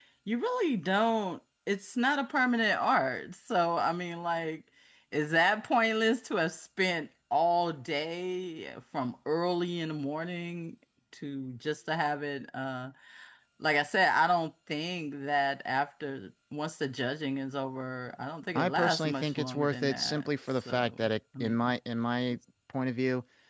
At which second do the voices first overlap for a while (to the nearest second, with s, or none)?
19 s